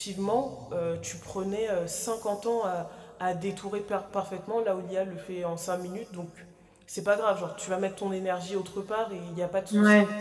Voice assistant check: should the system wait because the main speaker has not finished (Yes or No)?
Yes